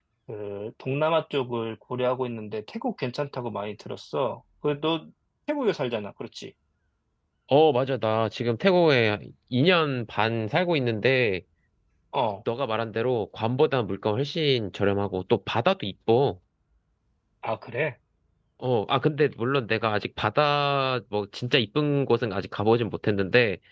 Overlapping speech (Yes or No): No